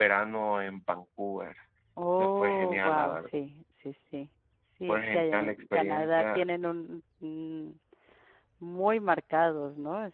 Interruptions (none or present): present